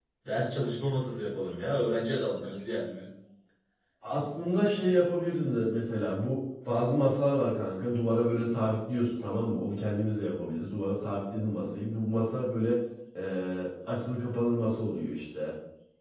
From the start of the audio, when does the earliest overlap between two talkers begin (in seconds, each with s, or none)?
none